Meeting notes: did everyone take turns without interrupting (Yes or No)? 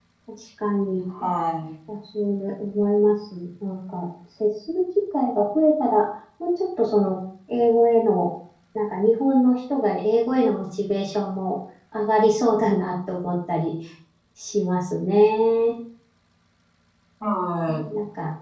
Yes